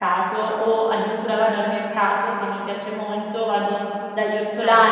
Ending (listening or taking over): listening